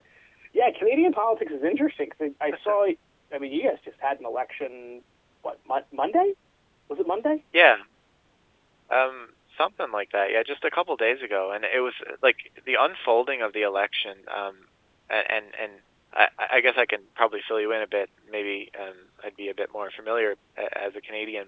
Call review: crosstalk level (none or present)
none